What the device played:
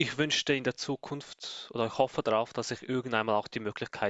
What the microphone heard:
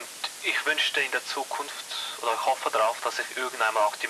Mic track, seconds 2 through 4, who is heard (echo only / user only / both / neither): echo only